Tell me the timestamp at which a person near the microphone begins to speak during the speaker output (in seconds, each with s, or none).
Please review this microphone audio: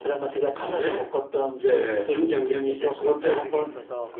3.0 s